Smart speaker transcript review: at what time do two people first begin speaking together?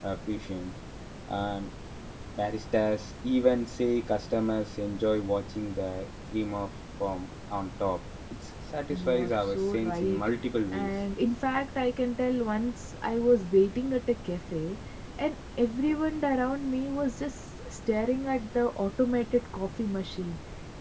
8.9 s

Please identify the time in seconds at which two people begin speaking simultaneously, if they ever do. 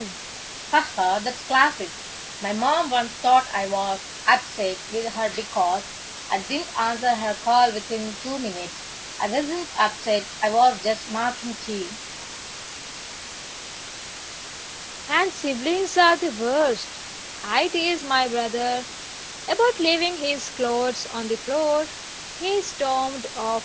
none

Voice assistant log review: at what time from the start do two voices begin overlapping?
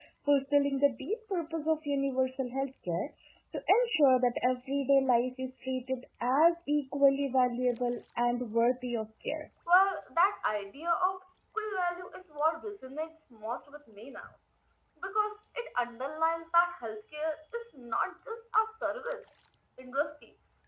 none

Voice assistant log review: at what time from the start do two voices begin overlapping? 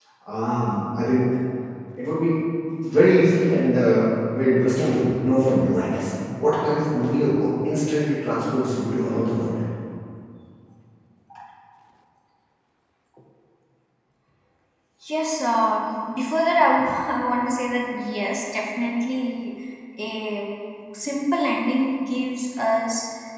none

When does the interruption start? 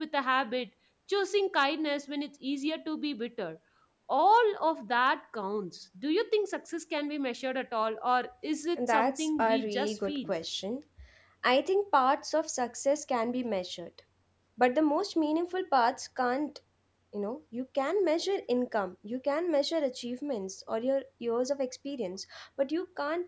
8.8 s

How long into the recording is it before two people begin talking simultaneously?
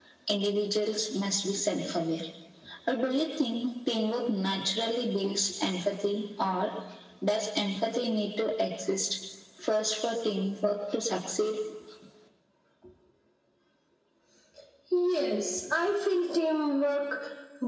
none

